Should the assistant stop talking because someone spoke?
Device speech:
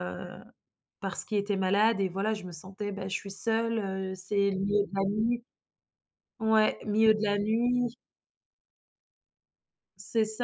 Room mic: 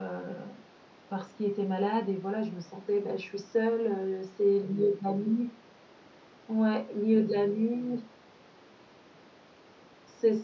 No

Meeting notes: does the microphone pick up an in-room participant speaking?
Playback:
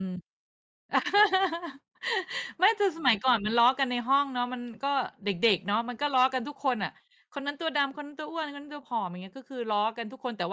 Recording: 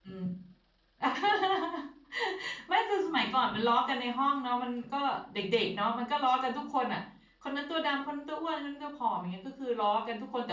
No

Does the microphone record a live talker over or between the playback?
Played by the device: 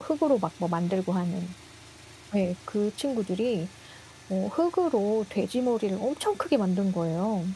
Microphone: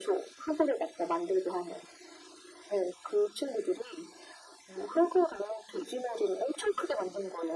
No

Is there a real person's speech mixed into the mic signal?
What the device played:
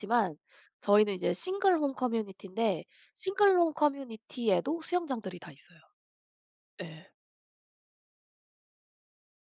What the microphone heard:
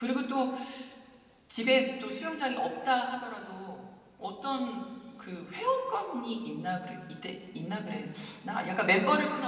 Yes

